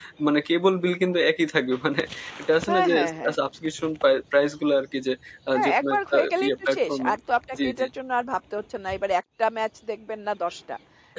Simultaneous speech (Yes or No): Yes